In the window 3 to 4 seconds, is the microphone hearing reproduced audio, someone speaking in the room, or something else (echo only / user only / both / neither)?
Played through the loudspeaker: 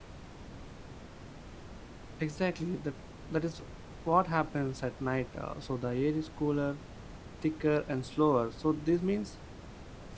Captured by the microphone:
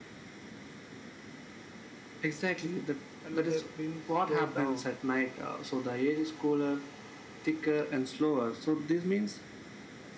both